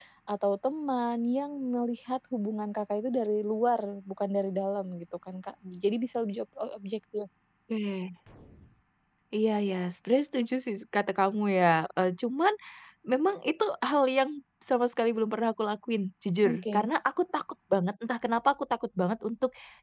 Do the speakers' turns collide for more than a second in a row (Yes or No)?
No